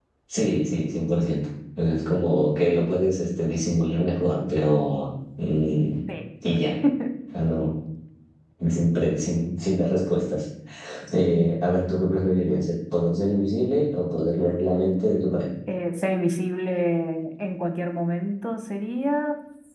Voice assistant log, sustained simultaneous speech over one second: none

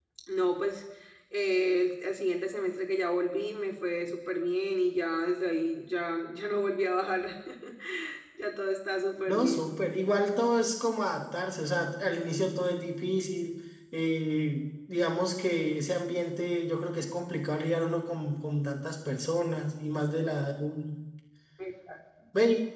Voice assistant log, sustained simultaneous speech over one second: none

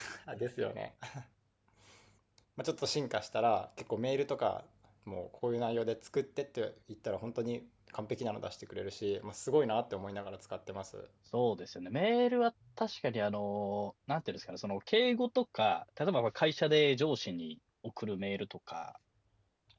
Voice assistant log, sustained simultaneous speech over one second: none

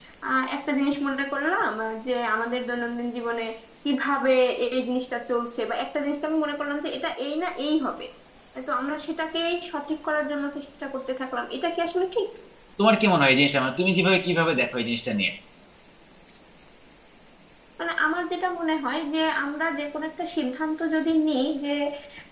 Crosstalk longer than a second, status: none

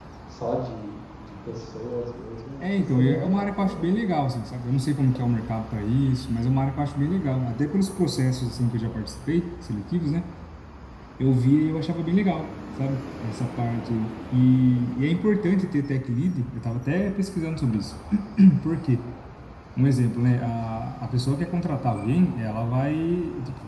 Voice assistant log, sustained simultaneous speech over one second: present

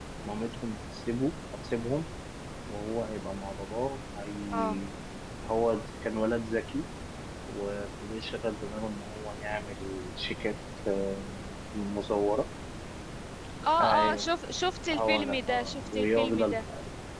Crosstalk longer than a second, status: present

